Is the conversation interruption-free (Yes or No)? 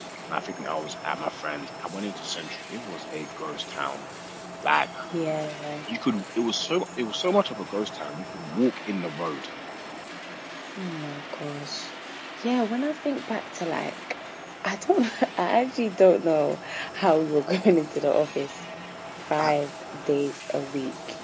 Yes